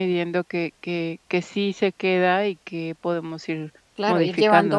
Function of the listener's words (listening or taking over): taking over